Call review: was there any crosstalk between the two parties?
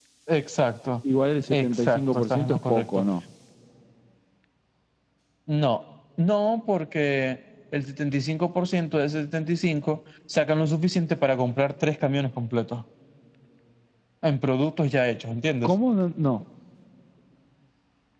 Yes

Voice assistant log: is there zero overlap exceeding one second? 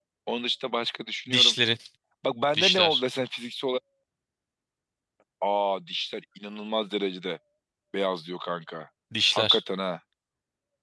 Yes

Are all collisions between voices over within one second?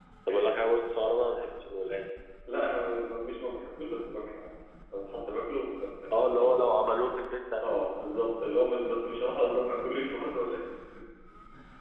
Yes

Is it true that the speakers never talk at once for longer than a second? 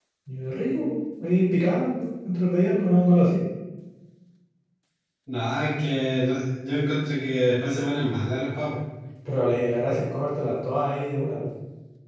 Yes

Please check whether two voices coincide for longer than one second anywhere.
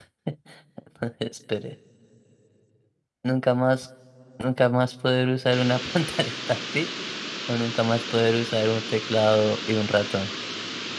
No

